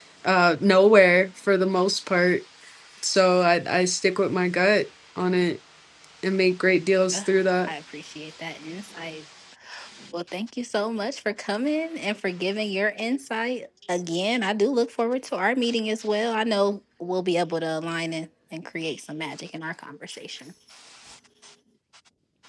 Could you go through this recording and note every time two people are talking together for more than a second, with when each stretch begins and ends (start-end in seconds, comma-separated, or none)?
none